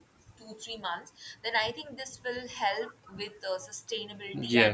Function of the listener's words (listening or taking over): taking over